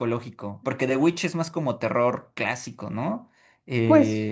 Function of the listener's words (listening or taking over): taking over